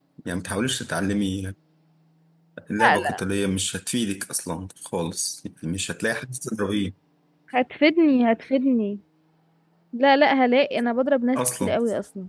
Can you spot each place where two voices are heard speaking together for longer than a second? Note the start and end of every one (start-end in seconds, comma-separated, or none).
none